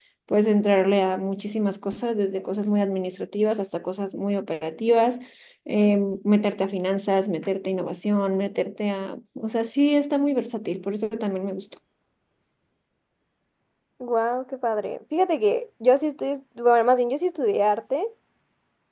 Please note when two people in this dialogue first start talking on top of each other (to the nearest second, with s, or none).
none